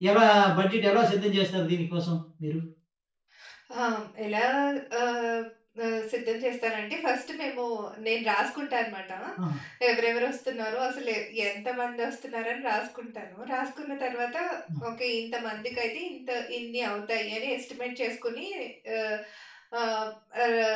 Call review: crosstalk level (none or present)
none